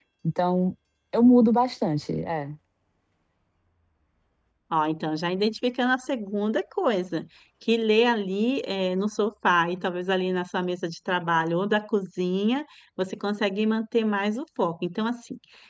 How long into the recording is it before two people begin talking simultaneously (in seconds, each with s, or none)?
none